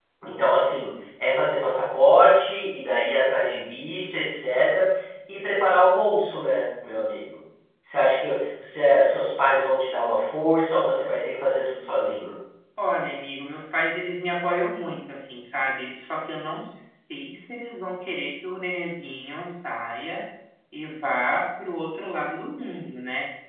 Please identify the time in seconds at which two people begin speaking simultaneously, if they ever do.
none

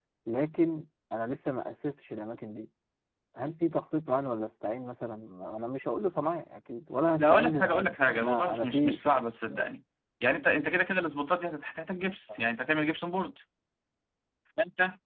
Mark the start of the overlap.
7.2 s

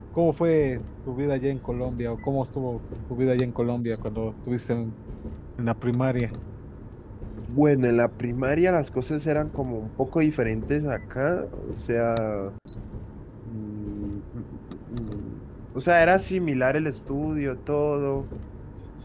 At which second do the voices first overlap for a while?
none

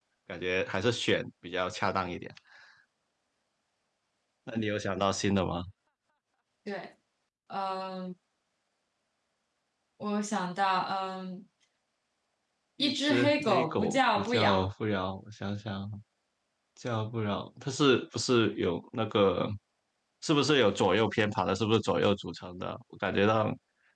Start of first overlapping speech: 12.8 s

